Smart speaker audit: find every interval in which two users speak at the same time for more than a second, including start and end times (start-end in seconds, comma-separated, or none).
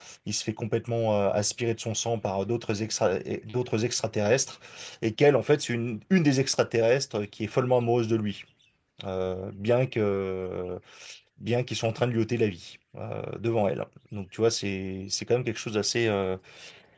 none